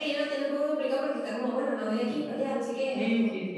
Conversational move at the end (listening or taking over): taking over